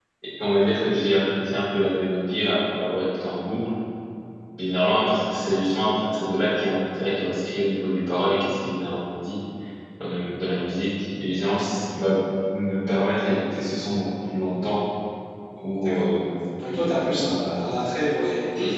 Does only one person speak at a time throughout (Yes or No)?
No